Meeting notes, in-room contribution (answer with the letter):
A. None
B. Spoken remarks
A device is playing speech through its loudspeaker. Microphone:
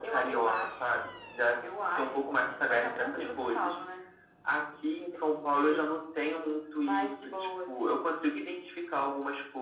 A